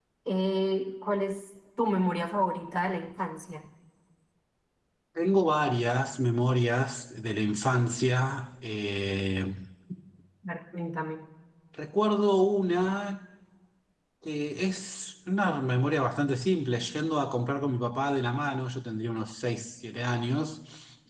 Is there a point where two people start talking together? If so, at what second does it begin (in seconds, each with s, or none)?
none